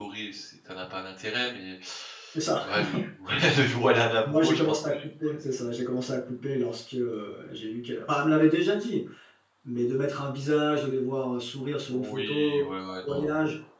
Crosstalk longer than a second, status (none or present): present